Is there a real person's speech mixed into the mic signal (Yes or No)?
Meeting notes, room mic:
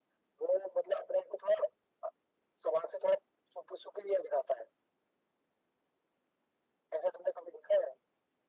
No